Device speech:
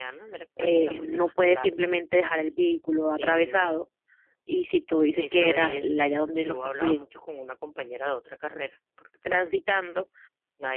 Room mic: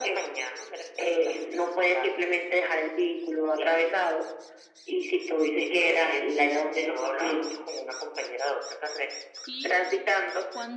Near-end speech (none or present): present